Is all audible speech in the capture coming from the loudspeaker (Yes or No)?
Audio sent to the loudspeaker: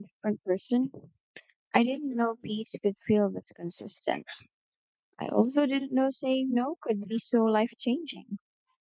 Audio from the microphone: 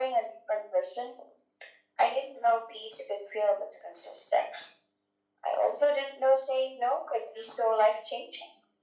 Yes